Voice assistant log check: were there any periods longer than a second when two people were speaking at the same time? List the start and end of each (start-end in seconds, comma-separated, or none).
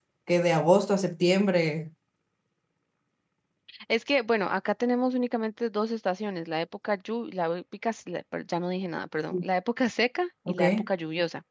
none